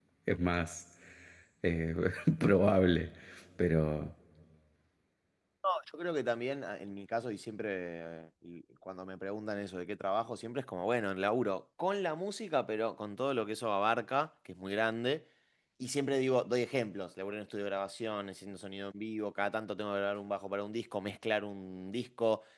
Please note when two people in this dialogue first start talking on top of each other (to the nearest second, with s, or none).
none